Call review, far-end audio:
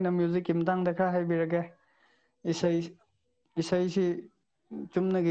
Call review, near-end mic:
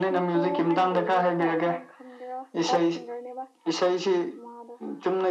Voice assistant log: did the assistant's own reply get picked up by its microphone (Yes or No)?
Yes